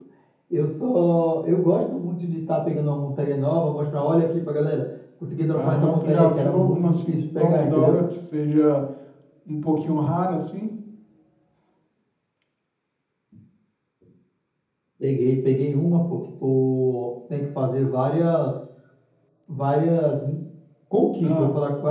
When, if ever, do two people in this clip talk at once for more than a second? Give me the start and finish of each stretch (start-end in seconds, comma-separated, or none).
5.5-8.0